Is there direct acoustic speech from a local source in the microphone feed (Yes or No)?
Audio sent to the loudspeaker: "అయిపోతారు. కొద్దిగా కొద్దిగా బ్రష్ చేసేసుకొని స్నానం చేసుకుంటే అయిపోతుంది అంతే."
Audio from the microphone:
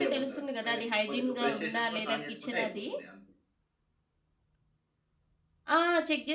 Yes